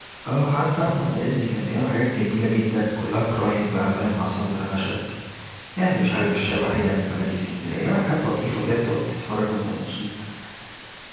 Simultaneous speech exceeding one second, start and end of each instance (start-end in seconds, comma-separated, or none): none